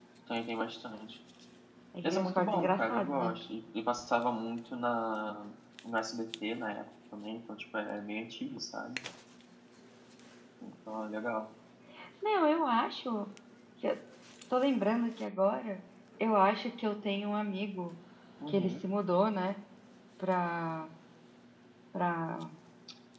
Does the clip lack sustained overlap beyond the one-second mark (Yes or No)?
No